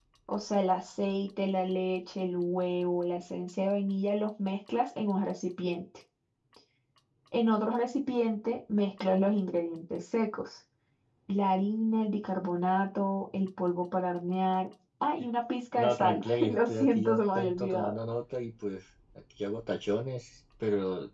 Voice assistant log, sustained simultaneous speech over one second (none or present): present